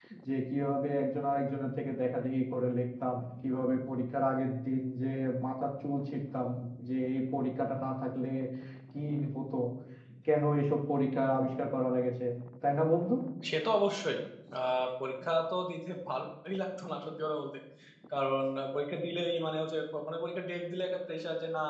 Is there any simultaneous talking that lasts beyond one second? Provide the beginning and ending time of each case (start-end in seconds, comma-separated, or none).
none